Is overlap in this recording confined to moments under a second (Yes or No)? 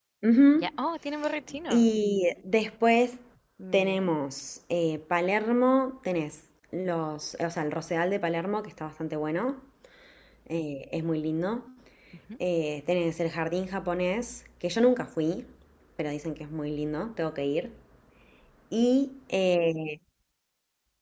Yes